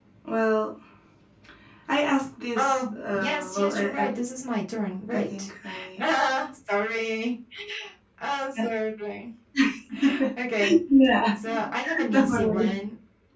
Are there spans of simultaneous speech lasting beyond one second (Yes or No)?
Yes